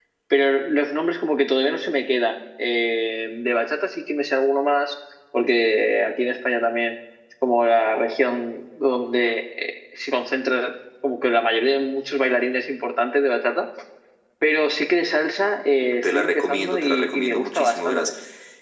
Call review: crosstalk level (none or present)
present